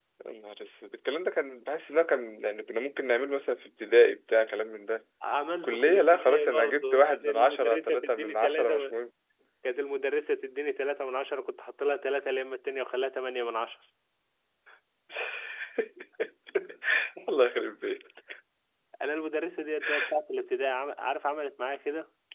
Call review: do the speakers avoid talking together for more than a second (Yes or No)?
No